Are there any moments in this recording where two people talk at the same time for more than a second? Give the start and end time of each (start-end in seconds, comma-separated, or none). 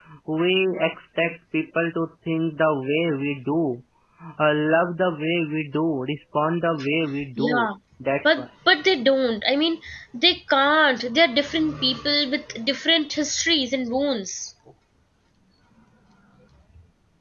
none